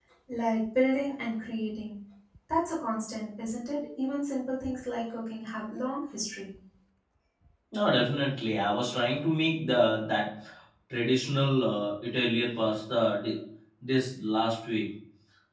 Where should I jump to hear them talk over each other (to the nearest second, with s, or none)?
none